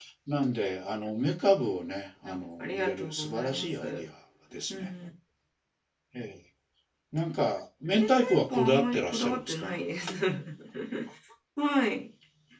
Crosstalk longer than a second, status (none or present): present